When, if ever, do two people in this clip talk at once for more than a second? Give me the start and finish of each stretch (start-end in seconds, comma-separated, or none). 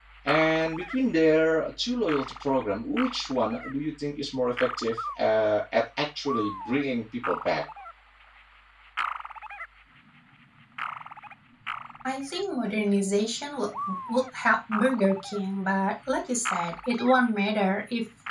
none